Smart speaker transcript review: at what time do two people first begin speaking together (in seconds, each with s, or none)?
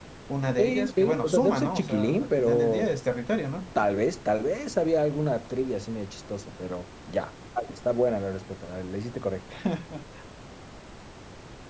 0.6 s